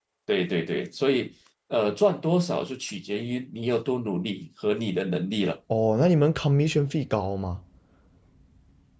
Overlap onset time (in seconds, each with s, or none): none